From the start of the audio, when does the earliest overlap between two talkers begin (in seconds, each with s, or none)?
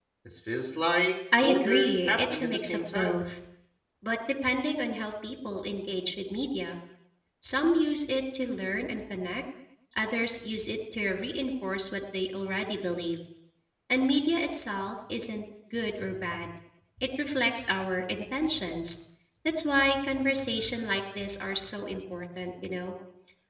1.3 s